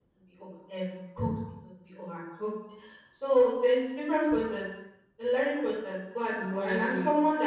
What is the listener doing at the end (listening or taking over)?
listening